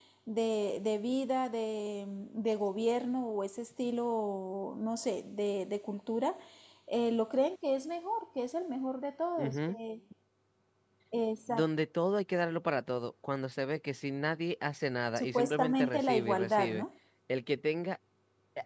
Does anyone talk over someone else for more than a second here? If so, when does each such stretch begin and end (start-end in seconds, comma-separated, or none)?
15.2-16.8